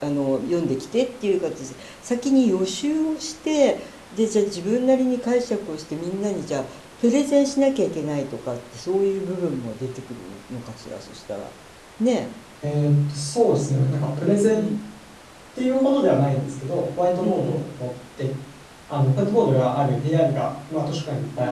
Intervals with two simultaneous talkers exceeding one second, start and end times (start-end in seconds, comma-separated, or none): none